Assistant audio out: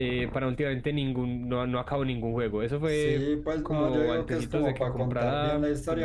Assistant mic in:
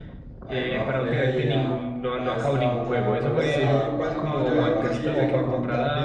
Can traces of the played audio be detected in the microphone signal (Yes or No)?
Yes